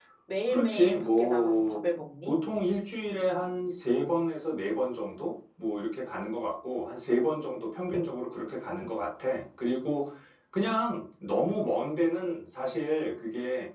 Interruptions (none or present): present